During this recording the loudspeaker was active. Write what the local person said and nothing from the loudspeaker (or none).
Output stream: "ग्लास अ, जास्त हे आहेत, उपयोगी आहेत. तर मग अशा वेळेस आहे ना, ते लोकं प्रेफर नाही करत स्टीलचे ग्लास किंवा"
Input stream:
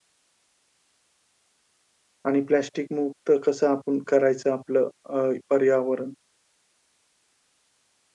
आणि प्लास्टिक मुक्त कसं आपण करायचं आपलं अ, पर्यावरण?